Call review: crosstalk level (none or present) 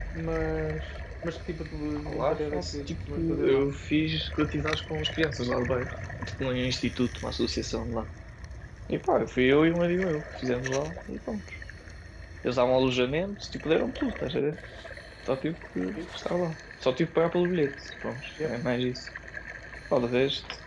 present